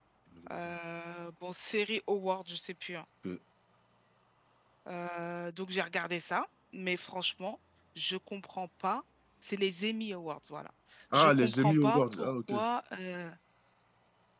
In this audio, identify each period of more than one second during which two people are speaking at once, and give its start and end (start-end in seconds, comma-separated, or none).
11.1-12.5